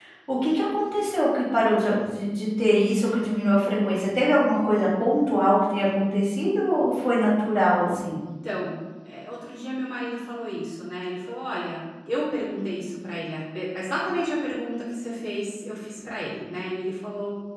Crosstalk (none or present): none